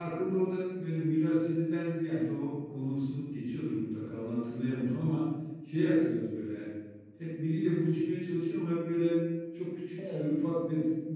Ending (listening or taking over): listening